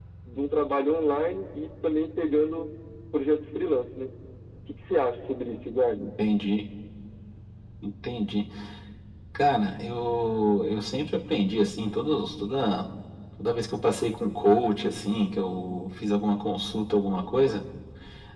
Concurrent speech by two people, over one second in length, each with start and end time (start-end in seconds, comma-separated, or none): none